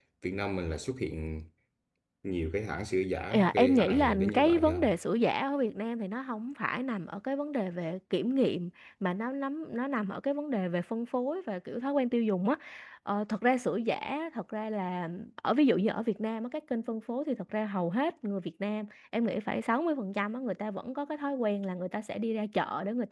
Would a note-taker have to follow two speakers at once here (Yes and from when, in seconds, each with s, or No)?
Yes, from 3.3 s